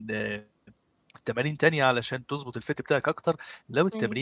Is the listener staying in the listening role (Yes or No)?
Yes